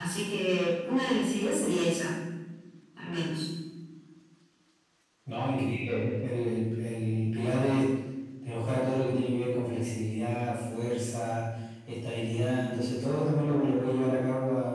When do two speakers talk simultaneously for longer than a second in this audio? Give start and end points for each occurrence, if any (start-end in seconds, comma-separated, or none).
none